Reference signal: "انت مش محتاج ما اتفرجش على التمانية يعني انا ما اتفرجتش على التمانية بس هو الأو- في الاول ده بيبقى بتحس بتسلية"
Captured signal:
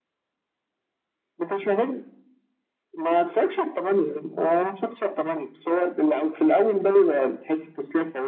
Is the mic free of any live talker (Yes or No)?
Yes